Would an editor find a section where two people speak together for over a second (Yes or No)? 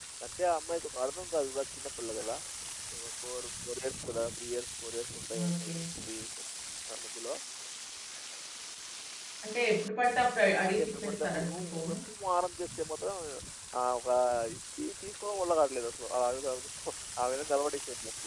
Yes